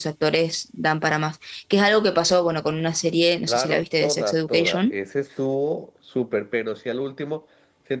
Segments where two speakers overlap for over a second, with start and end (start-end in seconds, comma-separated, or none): 3.5-4.9